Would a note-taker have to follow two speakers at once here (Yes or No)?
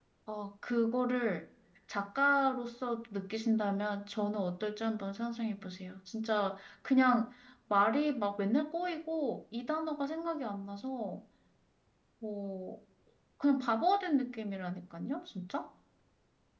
No